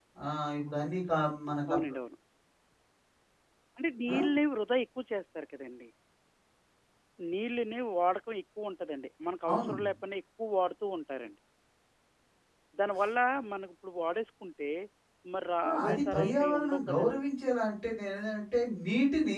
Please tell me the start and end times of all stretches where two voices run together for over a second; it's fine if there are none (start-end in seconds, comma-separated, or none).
15.7-17.2